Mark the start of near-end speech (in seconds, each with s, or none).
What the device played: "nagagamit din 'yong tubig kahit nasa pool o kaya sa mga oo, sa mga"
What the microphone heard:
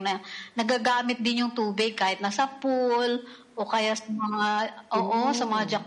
4.9 s